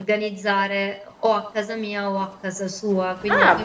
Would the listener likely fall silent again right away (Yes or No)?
Yes